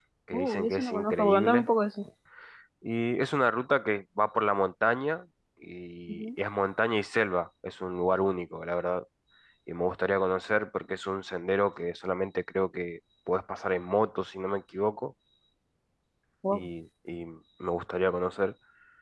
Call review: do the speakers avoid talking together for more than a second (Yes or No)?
No